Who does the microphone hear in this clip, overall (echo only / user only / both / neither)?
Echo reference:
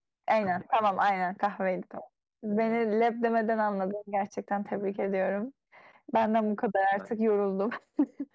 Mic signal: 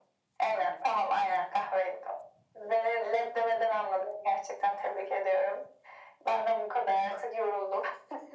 echo only